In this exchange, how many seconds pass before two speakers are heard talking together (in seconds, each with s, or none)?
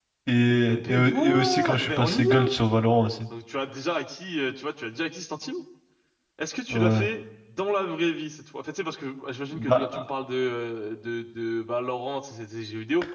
0.7 s